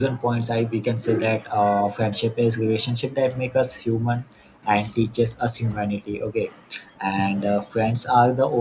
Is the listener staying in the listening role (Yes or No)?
Yes